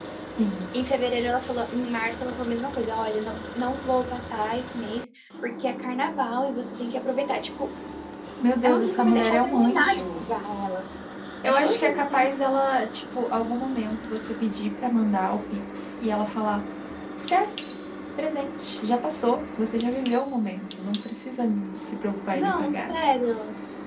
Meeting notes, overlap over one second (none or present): present